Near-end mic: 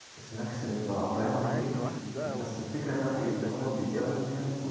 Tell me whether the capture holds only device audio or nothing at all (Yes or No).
No